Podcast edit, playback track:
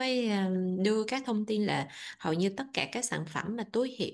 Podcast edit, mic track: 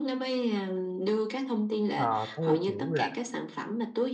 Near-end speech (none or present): present